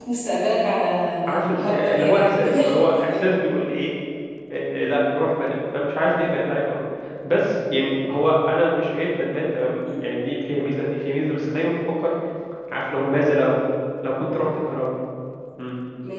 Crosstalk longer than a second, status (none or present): present